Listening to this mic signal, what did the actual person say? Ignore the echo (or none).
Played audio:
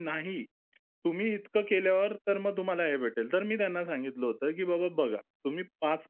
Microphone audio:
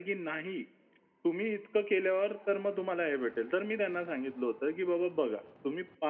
none